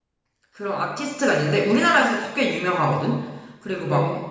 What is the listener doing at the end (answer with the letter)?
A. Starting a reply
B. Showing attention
B